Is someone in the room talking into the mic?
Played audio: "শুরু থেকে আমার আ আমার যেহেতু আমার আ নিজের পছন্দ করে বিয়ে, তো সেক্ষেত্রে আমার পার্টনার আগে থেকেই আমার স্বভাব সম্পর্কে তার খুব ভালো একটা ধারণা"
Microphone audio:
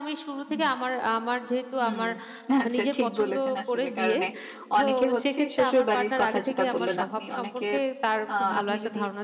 Yes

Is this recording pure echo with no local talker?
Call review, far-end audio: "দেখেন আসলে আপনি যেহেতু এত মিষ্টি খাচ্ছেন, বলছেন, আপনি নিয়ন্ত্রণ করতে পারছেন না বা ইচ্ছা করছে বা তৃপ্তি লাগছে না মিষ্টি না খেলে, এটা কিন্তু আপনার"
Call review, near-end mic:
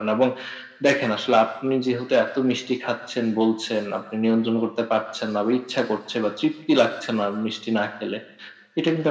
Yes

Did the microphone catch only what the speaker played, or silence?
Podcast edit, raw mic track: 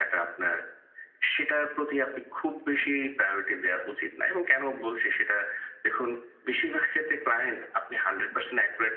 Yes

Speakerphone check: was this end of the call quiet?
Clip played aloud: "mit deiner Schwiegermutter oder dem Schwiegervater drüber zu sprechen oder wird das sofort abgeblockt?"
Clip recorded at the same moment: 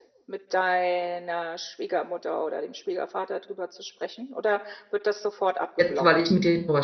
No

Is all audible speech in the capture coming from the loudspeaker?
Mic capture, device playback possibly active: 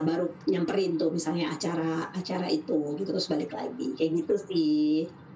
Yes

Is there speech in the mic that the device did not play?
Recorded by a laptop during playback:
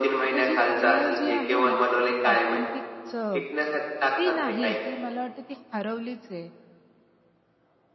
Yes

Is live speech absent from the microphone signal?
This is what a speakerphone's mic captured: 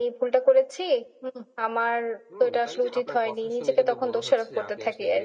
No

